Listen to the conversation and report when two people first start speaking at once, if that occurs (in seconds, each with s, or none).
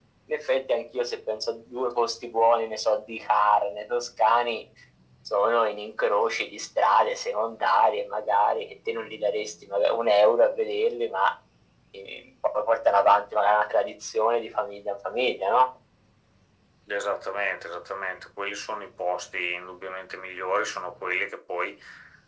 none